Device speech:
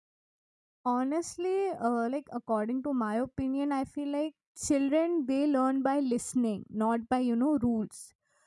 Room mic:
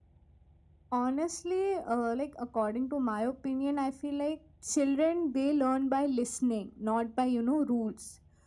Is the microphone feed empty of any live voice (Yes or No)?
Yes